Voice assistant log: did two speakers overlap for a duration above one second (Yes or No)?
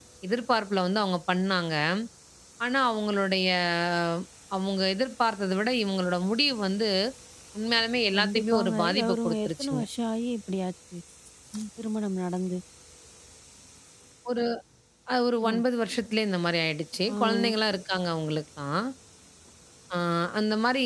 Yes